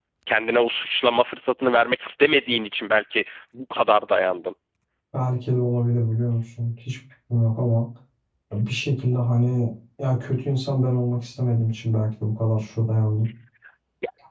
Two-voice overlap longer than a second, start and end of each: none

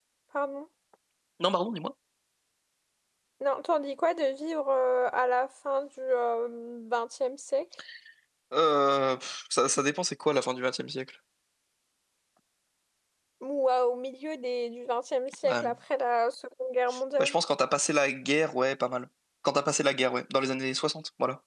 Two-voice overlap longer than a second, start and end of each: none

